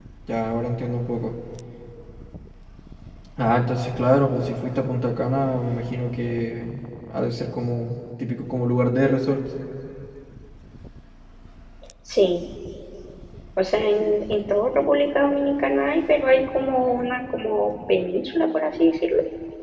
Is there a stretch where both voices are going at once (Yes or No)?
No